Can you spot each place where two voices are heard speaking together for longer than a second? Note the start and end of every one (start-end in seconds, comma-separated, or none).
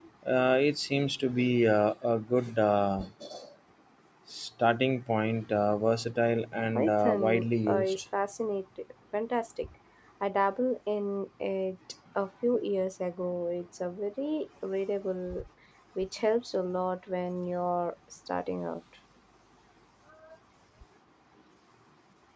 6.8-8.0